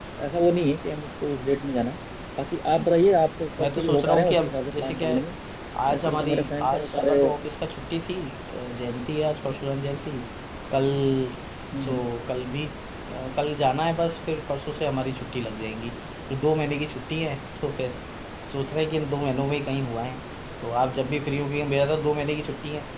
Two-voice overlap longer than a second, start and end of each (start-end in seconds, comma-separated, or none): 3.6-5.2, 5.9-7.2